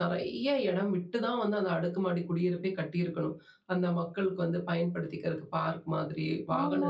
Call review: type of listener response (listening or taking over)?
taking over